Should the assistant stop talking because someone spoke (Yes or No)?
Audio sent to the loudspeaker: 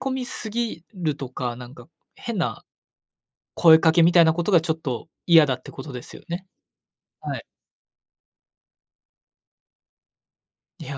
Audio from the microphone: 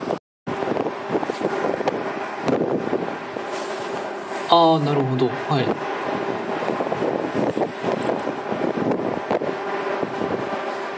Yes